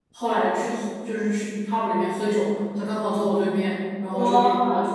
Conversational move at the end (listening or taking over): listening